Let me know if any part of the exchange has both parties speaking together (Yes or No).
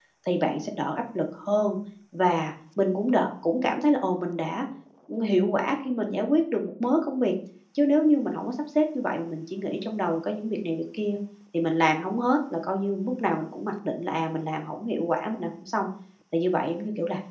No